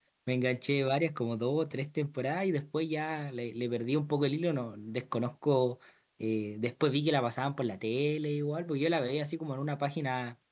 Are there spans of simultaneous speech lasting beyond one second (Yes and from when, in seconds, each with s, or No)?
No